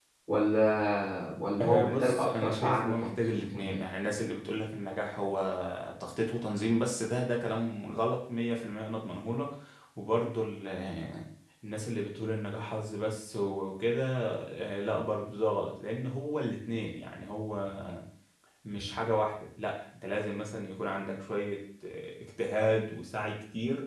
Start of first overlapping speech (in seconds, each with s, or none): 1.6 s